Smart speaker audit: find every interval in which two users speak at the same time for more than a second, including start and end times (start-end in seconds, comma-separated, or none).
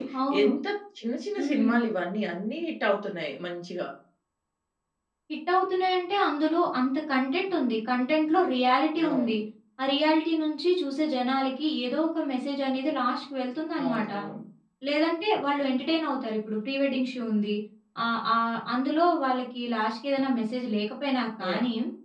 none